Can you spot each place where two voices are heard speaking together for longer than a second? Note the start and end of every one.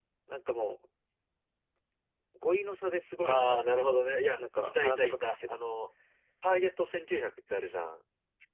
4.4-5.6

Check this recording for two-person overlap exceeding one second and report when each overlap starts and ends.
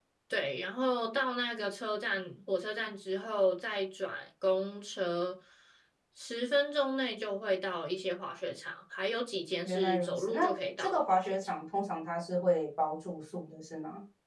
9.6-11.6

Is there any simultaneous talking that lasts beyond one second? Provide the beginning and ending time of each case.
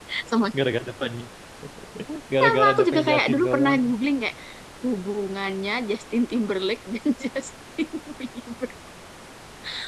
2.4-3.8

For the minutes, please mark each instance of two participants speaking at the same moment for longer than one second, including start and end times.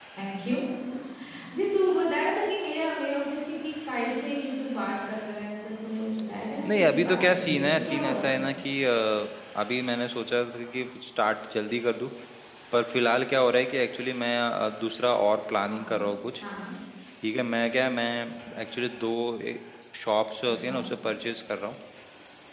6.7-8.5

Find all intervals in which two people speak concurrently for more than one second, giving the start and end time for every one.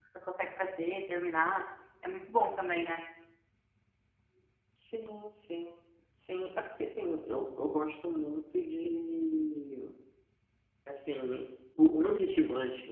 none

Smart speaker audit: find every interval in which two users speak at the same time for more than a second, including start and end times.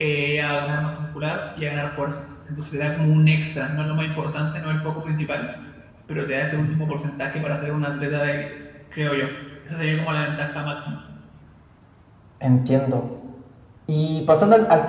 none

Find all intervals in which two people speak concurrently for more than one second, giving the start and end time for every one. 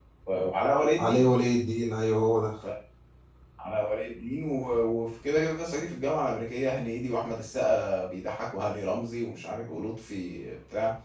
none

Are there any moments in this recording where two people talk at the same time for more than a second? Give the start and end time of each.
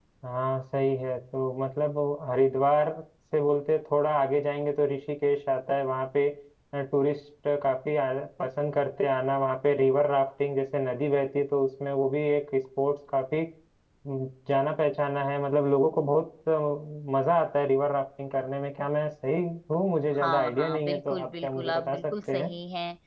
20.2-22.5

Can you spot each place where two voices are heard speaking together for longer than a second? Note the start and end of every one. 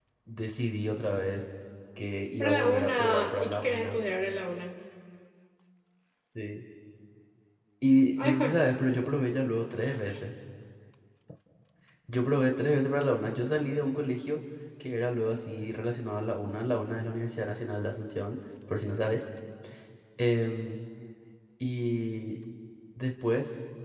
2.4-4.0

